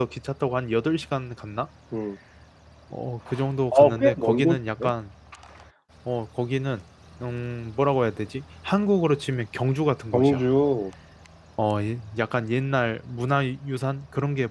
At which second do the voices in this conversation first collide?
3.7 s

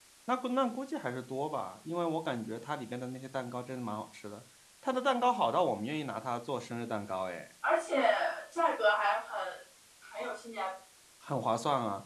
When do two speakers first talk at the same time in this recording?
none

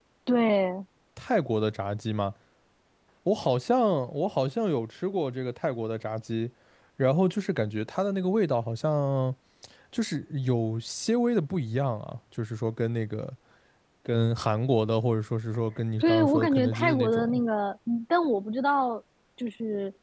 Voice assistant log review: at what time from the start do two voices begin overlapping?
16.0 s

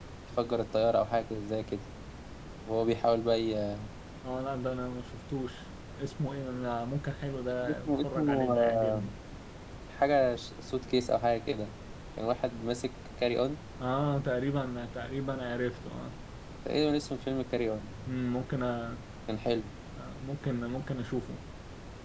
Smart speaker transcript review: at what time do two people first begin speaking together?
7.6 s

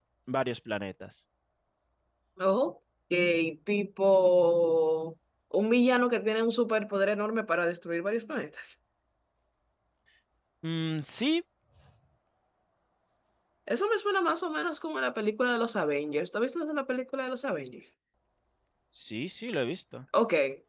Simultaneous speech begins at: none

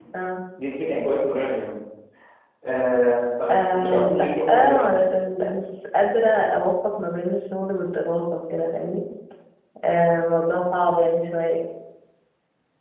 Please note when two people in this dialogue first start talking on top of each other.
3.5 s

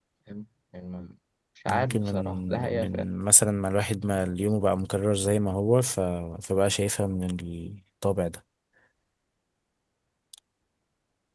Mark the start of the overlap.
1.7 s

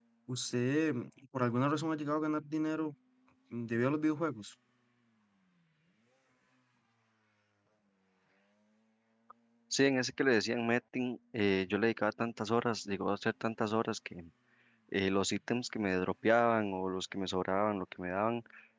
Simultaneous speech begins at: none

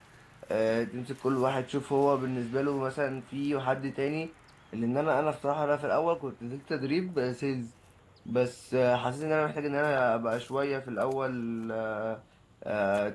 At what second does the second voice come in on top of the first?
none

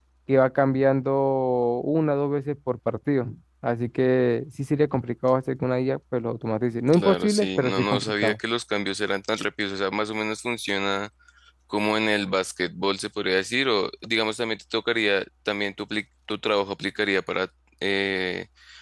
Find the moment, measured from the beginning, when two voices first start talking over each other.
6.9 s

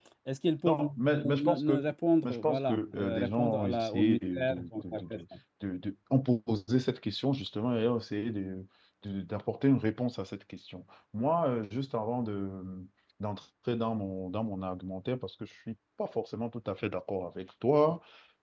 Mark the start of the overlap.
0.6 s

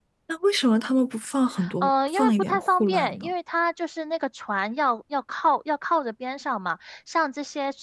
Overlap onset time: 1.6 s

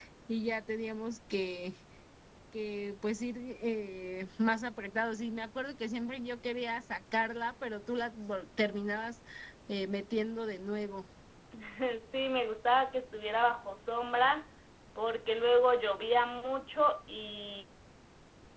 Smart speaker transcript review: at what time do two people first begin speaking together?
none

